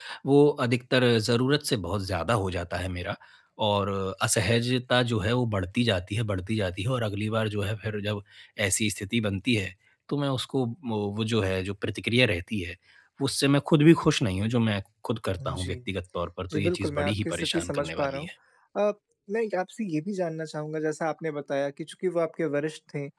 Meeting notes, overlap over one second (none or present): present